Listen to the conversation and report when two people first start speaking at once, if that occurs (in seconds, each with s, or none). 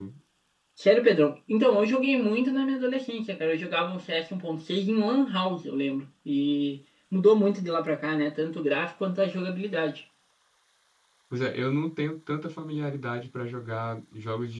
none